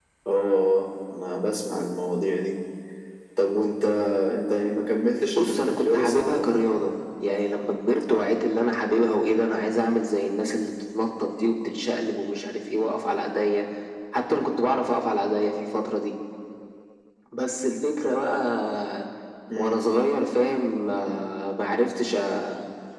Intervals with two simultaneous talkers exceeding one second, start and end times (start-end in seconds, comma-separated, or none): 5.3-6.5